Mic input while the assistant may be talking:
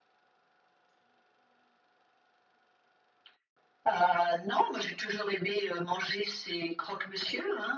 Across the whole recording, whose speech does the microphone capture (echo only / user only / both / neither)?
echo only